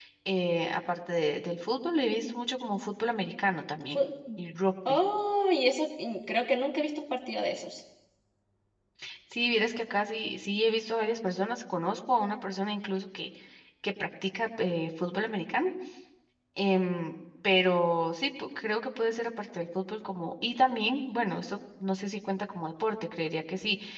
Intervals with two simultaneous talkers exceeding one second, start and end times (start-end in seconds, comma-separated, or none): none